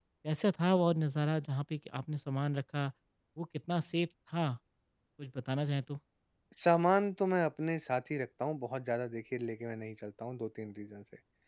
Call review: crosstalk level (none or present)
none